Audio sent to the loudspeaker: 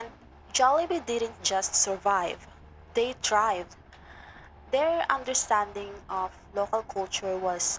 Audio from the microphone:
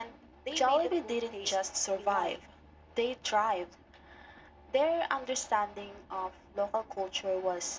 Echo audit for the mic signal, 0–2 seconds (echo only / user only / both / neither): both